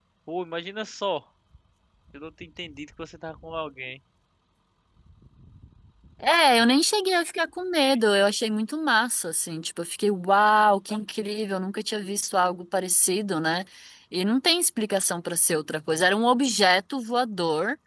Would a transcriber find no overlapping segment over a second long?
Yes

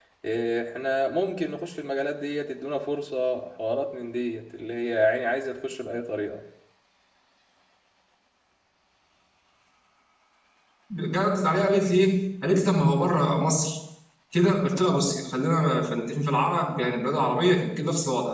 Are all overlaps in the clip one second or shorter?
Yes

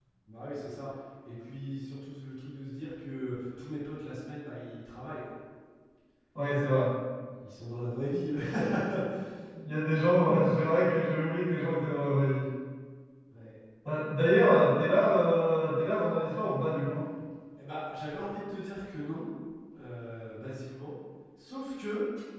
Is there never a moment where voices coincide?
Yes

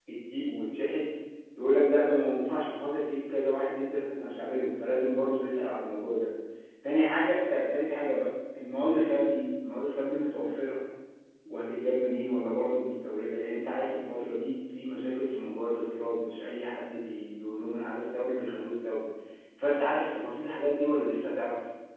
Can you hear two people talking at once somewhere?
No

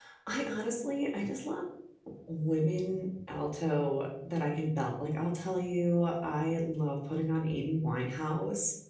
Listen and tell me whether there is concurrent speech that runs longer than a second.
No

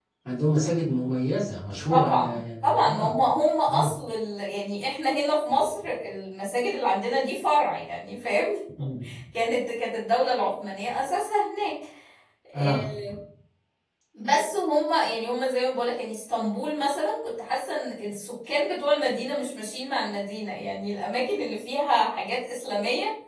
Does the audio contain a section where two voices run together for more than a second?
Yes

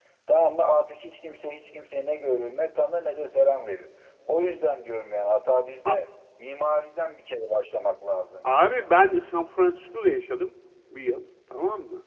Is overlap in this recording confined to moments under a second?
Yes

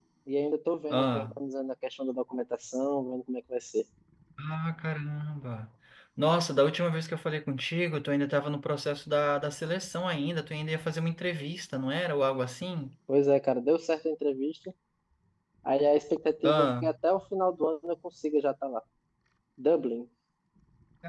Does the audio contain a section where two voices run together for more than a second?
No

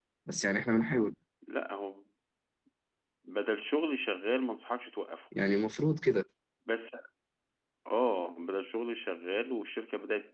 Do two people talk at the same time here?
No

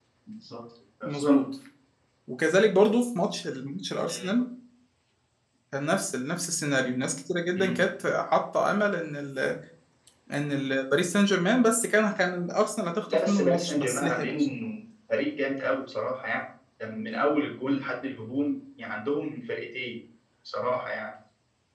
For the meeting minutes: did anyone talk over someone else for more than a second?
Yes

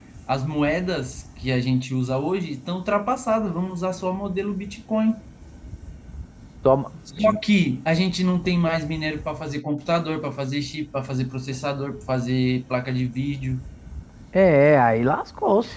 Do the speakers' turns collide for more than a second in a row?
No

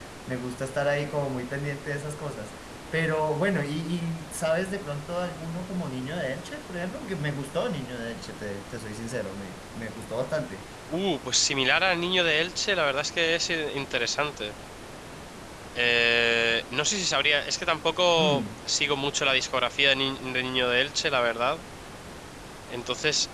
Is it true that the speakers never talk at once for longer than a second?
Yes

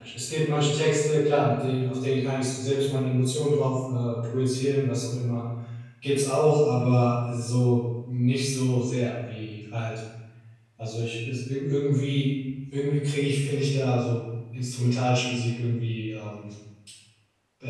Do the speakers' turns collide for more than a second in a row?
No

